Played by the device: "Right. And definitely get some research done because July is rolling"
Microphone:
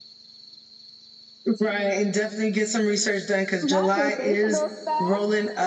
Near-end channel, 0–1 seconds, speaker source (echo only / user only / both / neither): neither